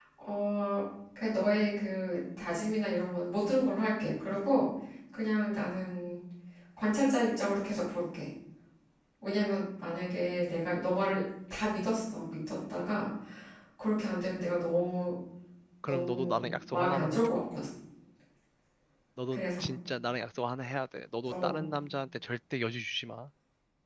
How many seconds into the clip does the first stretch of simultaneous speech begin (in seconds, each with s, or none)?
15.8 s